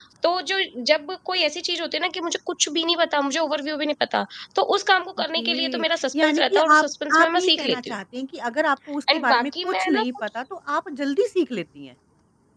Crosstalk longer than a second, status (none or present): present